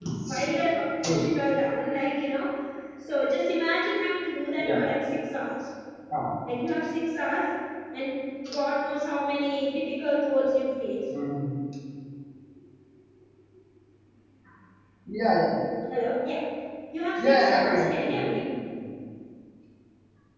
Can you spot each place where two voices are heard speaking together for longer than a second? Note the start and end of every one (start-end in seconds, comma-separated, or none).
17.2-18.4